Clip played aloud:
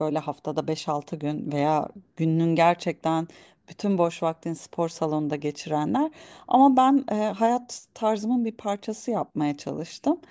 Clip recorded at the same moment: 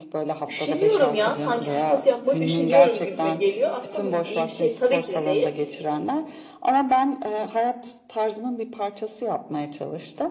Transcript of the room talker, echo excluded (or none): üşeniyorum ya sanki fitness yapmaya üşeniyorum gibime geliyor. Aslında bu iyi bir şey tabii ki de değil.